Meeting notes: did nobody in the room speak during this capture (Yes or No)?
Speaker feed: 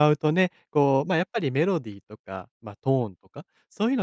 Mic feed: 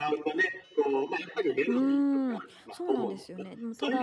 No